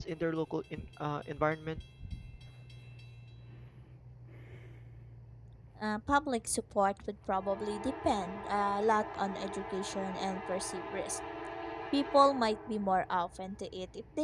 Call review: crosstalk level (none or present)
none